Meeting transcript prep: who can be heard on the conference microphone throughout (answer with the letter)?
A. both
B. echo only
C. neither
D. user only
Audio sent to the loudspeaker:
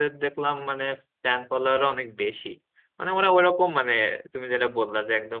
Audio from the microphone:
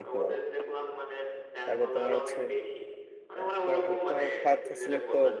A